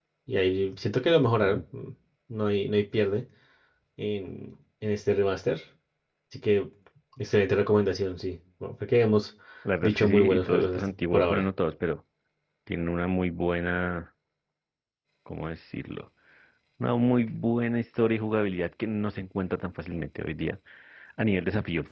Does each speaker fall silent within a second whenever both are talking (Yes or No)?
No